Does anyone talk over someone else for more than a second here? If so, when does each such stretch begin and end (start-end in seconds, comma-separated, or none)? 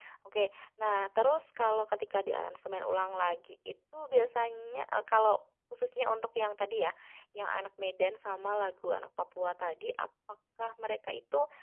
none